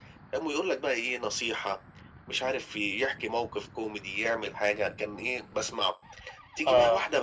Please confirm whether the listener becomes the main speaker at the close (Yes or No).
No